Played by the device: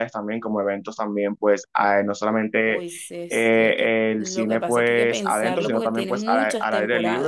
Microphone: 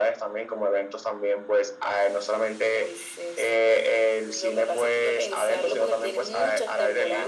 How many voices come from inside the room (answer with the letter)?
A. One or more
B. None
B